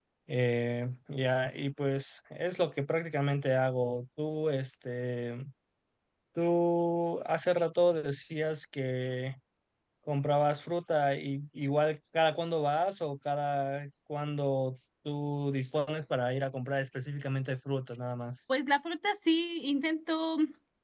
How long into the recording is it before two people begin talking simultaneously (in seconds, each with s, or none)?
none